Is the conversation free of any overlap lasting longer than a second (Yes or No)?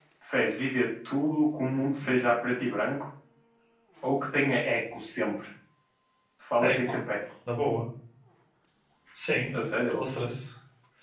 Yes